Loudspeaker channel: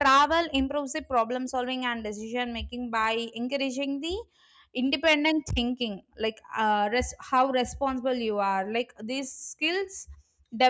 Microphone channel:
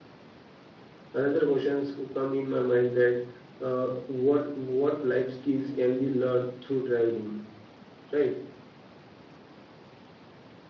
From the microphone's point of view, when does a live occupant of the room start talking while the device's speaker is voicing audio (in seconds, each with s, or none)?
1.1 s